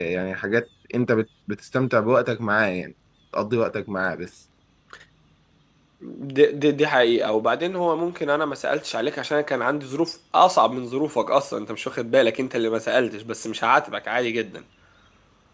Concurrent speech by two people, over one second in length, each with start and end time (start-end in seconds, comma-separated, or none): none